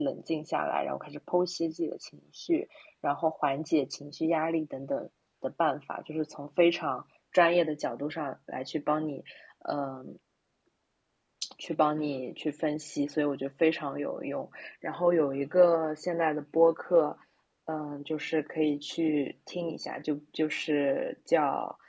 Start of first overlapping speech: none

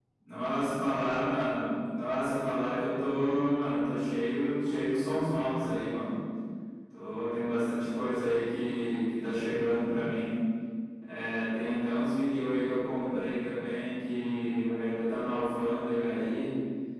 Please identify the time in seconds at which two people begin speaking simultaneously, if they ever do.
none

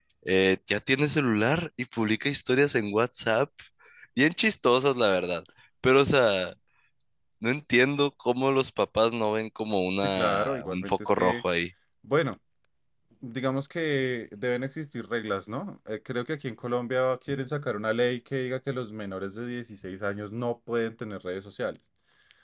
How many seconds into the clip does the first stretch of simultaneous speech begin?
10.0 s

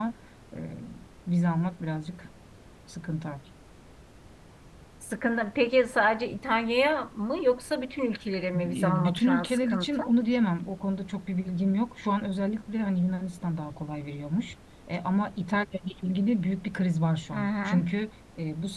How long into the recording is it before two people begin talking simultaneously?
8.5 s

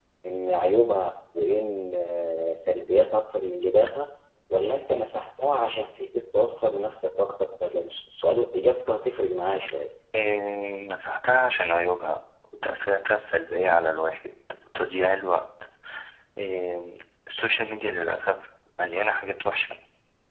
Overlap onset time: none

